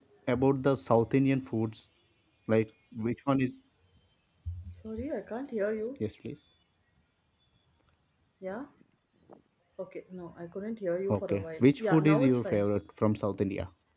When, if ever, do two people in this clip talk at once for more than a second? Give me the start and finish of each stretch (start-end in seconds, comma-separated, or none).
11.1-12.7